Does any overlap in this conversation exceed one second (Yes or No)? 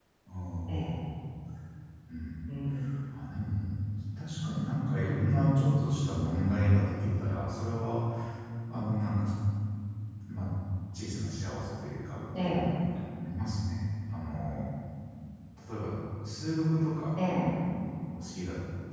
No